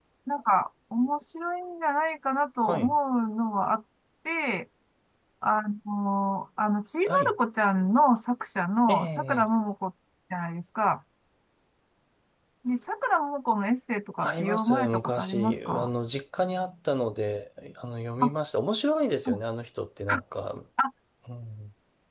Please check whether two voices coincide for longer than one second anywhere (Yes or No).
Yes